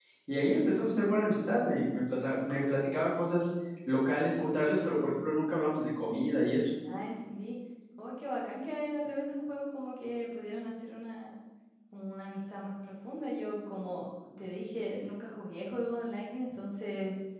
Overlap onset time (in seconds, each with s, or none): none